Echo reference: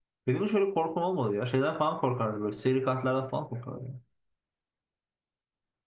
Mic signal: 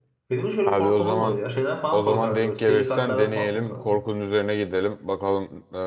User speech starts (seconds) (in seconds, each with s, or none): 0.7 s